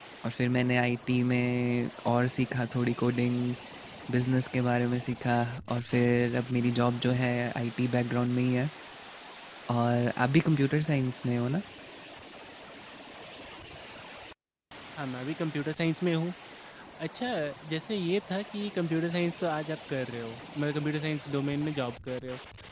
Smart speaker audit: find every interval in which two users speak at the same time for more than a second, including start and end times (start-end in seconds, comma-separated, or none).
none